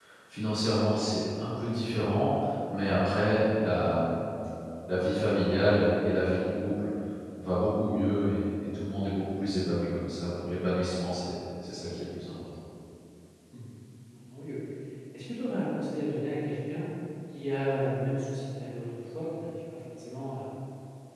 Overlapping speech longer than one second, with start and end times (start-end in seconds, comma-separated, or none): none